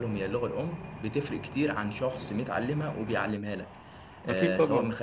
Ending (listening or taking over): listening